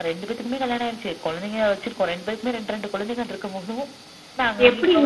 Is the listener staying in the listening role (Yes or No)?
No